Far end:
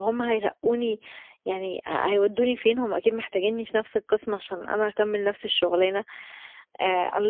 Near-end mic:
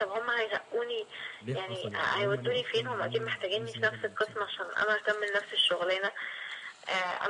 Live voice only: ليه حصل؟ يعني هُم ليه أصلًا ليه ما عملوش زيادة من نَفْسهم

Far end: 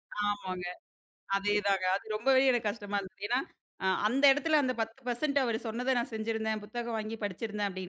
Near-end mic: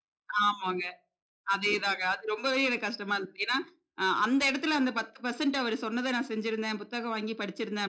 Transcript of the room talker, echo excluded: none

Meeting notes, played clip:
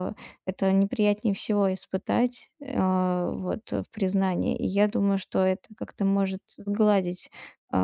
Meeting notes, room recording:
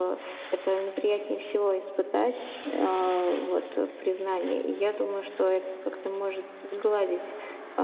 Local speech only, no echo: none

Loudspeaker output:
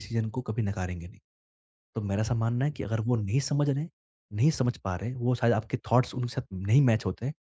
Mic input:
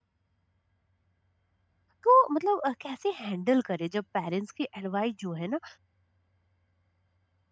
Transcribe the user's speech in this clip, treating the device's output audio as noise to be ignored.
तो मतलब अ, कैसे हैंडल करें जब पेरेंट्स की एडवाइस जो है ना,

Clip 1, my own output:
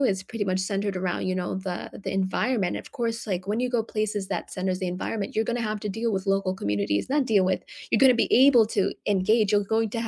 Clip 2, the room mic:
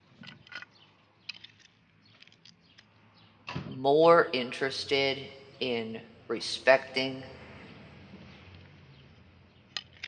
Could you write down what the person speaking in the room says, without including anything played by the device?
more interested in respecting

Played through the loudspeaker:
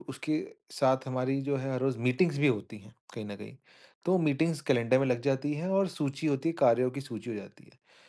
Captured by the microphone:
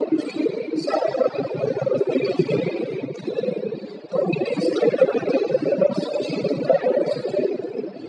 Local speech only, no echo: none

